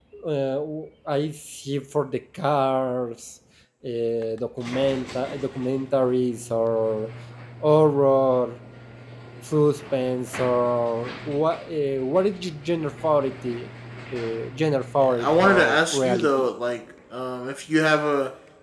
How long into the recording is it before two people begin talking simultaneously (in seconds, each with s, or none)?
15.0 s